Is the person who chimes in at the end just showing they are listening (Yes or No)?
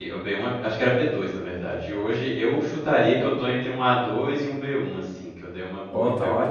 No